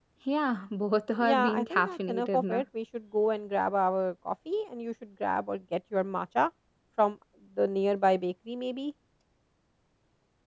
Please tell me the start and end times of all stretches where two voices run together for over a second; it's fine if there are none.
1.2-2.6

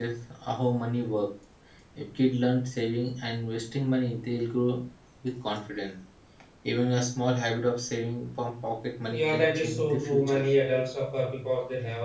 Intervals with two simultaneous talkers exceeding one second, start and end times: 9.1-10.4

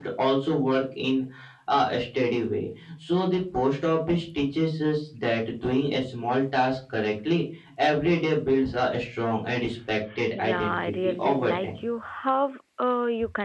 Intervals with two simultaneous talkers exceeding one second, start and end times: 10.3-11.8

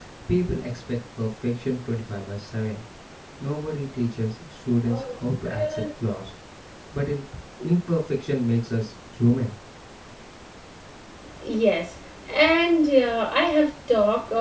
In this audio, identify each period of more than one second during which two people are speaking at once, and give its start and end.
none

